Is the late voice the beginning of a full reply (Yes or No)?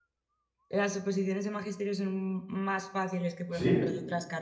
No